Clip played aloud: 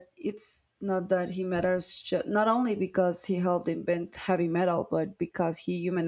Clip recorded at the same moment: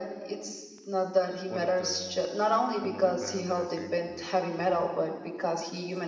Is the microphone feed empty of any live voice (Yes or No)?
No